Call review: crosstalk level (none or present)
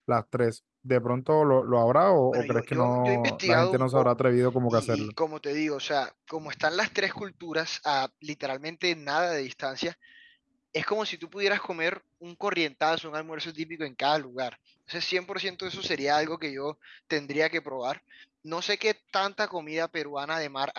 present